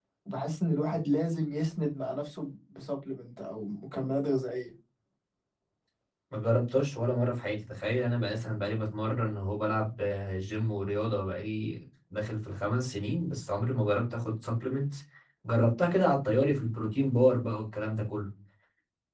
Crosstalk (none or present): none